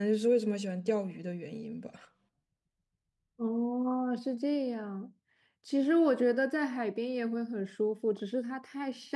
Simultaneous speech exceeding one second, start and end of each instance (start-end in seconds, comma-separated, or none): none